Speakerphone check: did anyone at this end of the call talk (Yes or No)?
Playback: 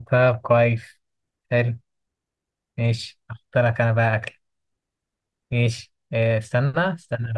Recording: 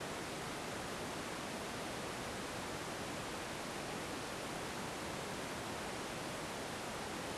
No